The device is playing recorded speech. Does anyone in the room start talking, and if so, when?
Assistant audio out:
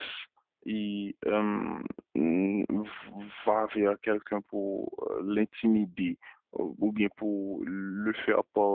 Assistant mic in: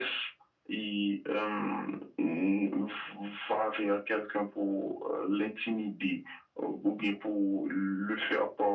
none

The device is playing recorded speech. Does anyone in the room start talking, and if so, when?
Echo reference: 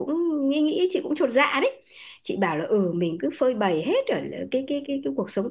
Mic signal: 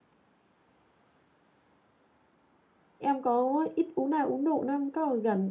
3.0 s

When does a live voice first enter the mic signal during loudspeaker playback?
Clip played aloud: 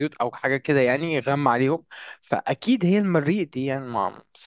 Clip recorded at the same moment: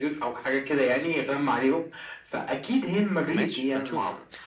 3.3 s

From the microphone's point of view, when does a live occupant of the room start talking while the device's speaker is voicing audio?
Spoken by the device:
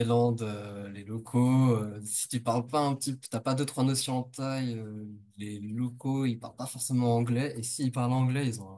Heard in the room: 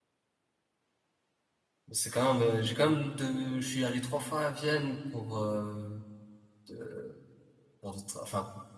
1.9 s

